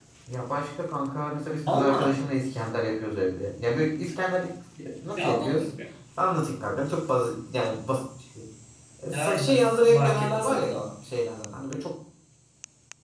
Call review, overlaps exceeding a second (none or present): present